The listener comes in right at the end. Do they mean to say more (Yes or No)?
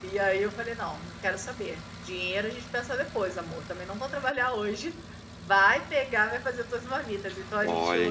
Yes